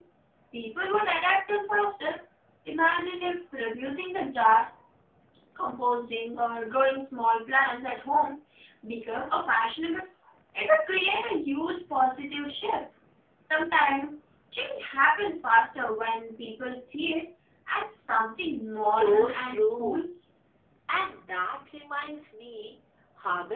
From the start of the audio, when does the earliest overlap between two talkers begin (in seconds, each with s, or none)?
18.4 s